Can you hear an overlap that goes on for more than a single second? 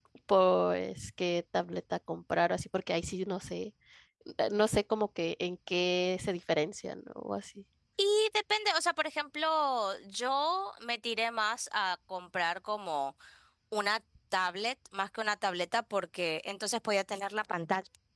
No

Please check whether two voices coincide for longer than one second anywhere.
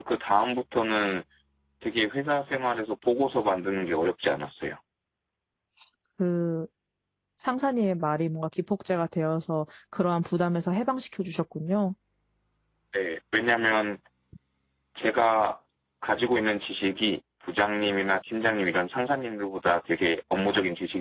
No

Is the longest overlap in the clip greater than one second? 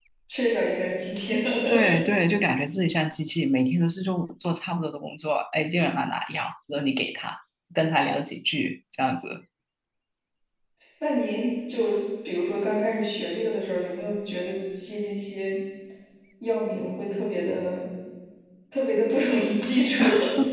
No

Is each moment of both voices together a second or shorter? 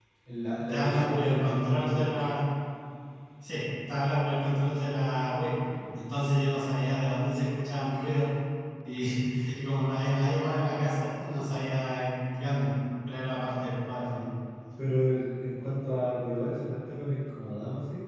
No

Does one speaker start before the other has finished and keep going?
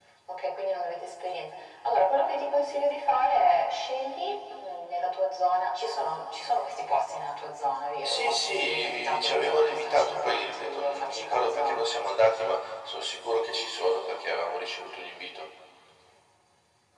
Yes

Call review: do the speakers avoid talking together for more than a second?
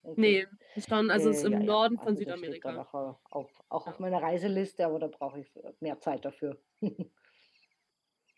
No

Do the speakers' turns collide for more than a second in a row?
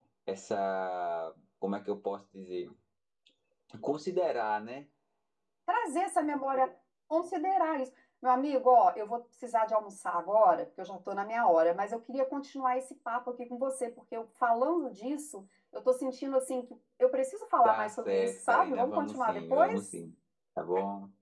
Yes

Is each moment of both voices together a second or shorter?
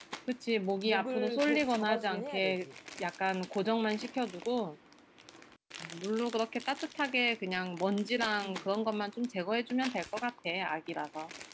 No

